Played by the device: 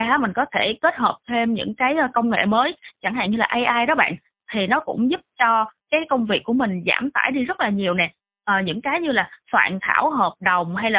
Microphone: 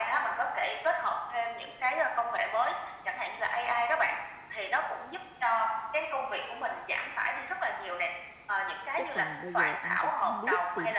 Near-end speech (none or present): present